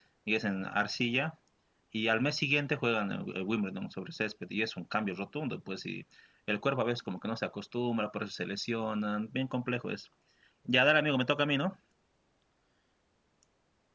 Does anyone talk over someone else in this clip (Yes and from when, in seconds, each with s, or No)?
No